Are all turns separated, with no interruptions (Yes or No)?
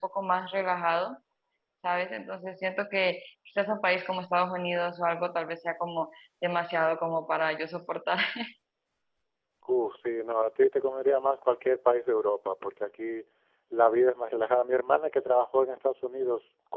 Yes